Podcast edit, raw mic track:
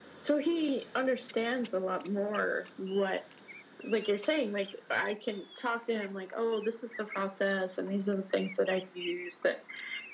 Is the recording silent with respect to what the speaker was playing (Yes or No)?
No